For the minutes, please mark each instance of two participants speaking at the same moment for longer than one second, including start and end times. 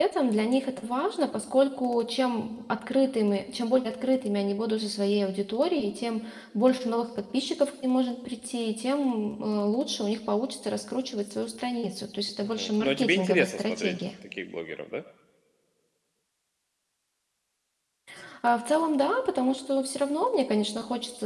12.4-13.9

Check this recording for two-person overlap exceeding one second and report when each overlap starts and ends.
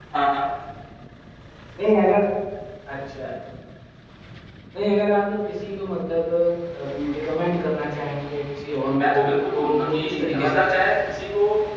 9.1-10.8

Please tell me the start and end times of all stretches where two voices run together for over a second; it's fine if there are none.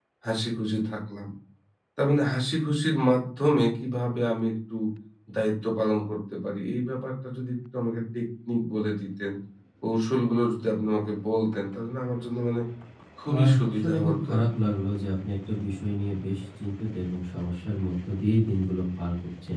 13.4-14.7

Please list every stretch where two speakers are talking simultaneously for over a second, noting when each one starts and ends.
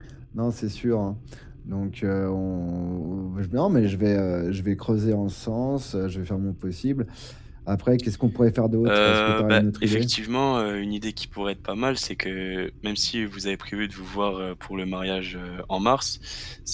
8.8-10.1

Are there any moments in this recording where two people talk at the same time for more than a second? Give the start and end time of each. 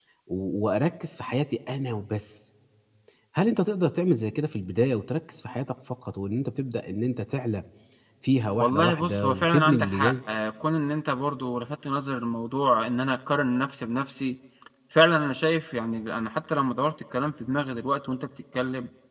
8.6-10.1

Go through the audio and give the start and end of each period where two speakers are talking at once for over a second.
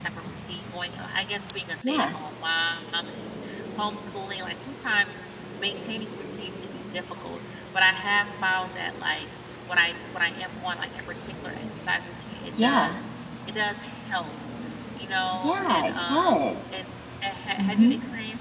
15.3-16.8

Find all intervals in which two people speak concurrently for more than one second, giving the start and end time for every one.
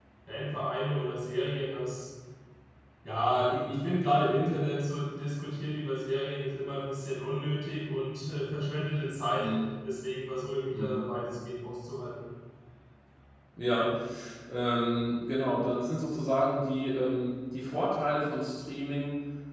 none

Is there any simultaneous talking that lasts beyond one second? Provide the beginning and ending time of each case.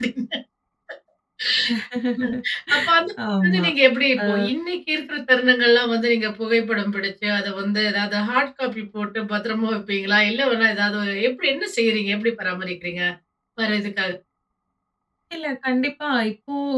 none

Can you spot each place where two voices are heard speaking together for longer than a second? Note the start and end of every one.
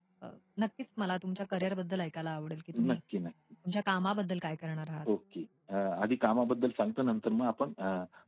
none

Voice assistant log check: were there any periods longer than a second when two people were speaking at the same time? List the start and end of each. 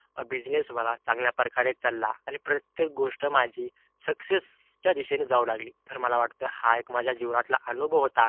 none

